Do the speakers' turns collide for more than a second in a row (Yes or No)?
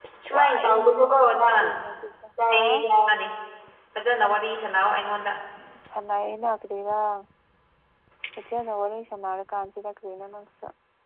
Yes